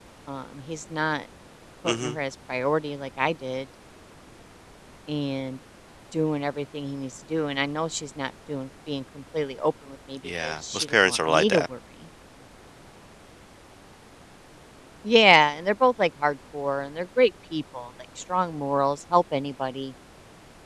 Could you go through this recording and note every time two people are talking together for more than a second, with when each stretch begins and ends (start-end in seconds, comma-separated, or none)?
10.2-11.6